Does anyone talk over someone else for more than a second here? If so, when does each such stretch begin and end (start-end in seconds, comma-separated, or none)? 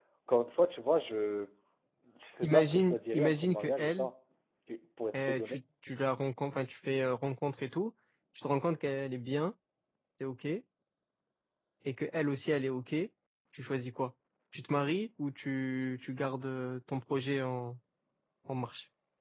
2.4-4.1